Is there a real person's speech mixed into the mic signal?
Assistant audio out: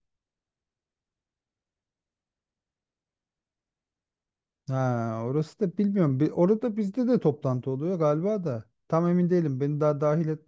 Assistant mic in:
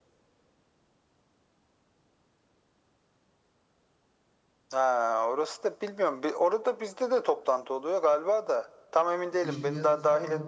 Yes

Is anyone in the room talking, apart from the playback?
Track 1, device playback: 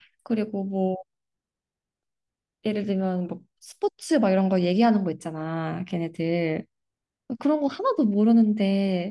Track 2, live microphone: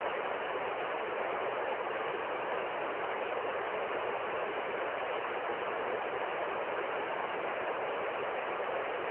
No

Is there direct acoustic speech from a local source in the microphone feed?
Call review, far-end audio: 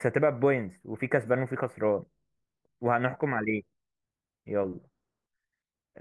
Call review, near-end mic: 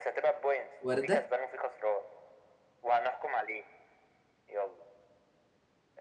Yes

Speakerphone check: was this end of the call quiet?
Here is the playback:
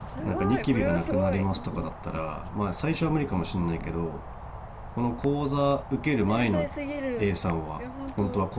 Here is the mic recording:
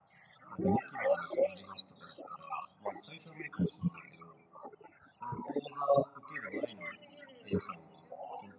Yes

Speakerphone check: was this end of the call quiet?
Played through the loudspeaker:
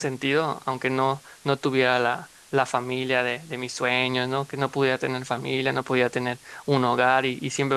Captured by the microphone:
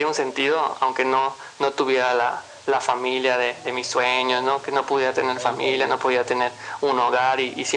No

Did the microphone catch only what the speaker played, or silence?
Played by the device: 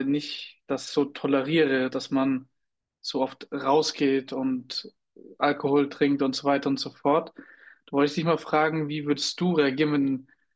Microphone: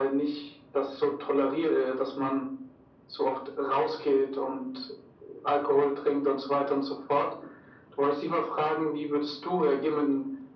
Yes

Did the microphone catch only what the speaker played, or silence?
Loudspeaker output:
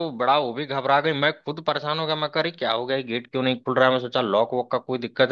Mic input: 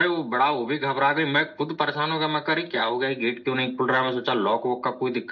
Yes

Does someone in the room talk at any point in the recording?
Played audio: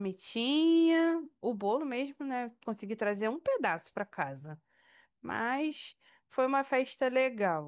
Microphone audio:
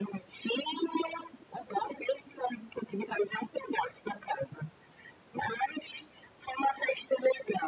No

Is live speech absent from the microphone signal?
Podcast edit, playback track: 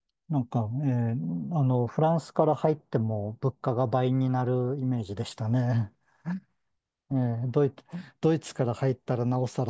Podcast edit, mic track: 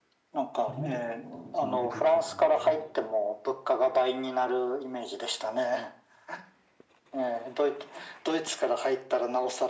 No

